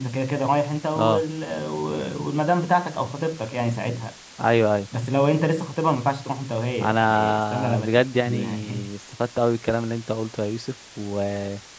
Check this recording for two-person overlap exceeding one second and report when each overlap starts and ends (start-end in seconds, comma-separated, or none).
6.8-8.9